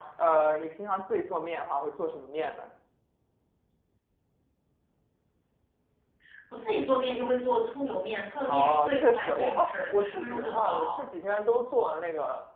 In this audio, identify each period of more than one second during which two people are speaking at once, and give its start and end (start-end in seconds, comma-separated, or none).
8.4-11.0